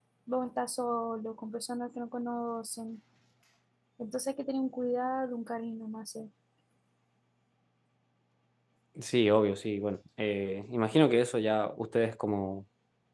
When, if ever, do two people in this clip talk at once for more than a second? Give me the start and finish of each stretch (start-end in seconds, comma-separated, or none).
none